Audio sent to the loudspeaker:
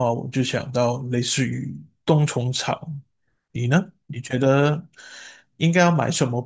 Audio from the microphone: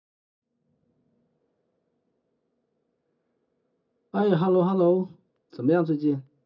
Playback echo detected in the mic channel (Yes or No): No